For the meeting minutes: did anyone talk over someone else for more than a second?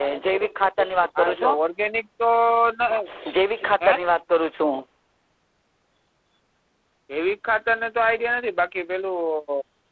No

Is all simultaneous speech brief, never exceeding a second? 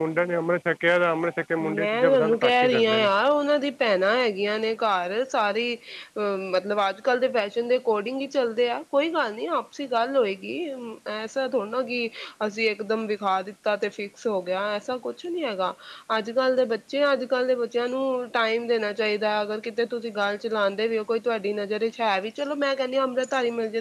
No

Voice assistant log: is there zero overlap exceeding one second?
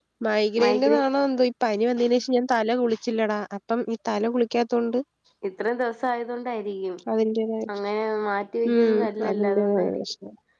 No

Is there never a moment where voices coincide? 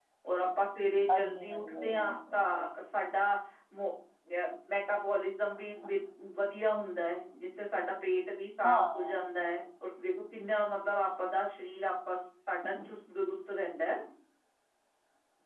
No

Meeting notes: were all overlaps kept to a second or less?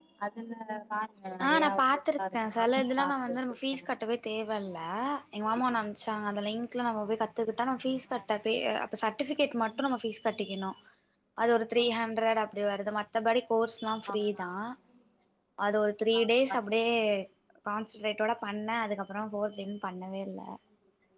No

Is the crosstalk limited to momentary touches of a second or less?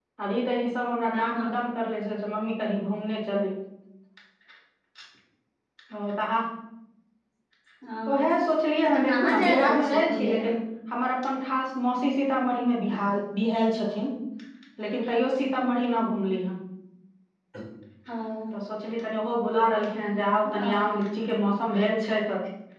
No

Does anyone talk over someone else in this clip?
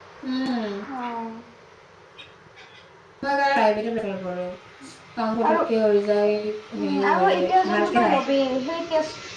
Yes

